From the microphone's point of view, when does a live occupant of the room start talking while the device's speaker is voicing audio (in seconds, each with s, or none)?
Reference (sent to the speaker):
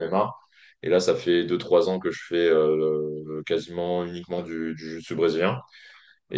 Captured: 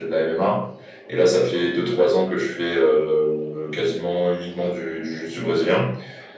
none